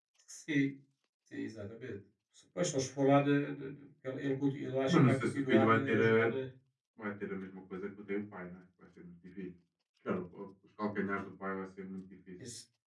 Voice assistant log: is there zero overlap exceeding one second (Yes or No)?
No